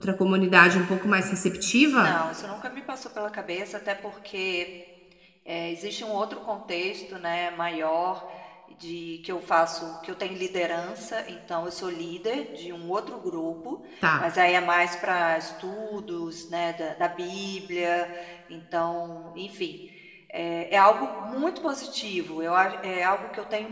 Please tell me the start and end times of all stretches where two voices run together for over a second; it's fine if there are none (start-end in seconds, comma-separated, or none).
none